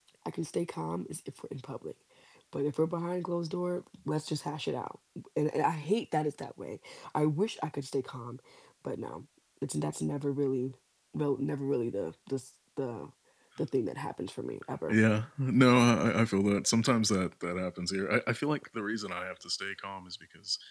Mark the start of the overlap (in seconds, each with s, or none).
none